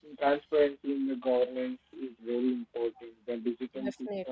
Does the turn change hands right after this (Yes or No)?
No